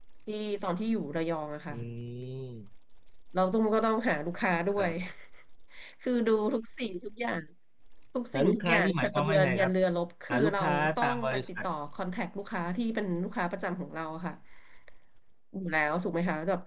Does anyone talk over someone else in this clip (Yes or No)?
Yes